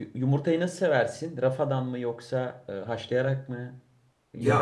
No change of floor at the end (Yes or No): No